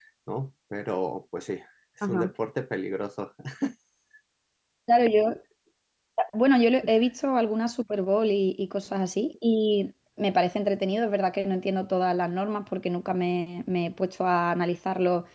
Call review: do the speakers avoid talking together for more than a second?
Yes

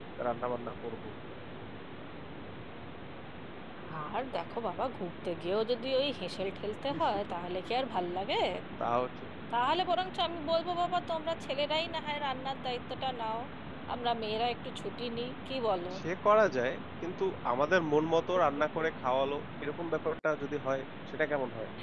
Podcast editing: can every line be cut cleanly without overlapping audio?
Yes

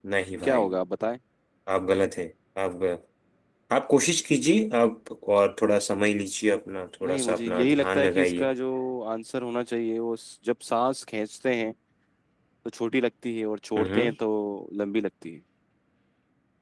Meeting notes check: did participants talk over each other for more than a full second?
Yes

